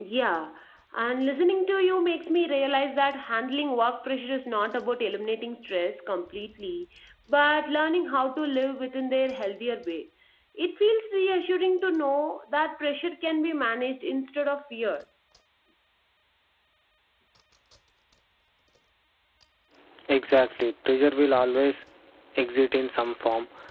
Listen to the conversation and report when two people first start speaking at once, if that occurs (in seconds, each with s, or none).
none